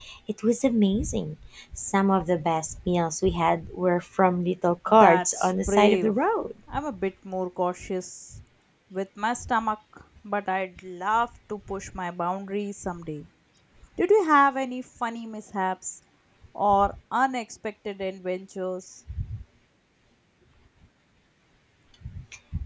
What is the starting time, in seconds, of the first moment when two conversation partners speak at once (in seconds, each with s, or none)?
4.9 s